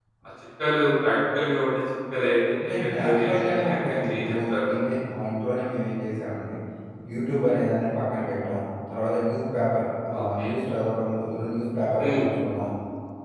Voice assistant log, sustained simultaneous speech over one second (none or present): present